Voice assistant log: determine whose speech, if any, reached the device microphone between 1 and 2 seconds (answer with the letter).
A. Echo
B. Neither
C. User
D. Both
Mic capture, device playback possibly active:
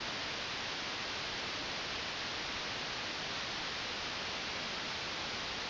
B